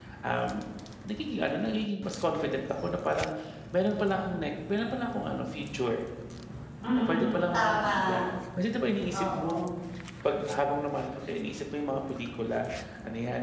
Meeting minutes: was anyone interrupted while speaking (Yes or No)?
Yes